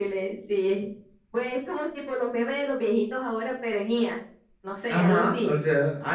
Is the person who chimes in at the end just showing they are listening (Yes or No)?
No